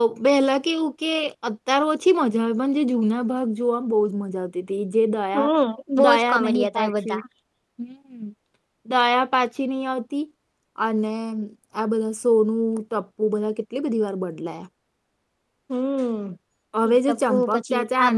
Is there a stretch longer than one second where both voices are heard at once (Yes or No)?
Yes